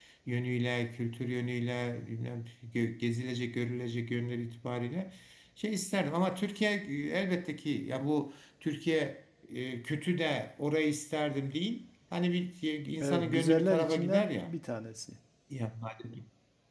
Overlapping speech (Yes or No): Yes